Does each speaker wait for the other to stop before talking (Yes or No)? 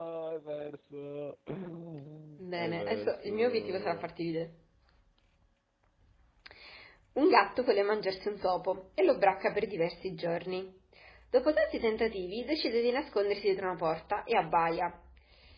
No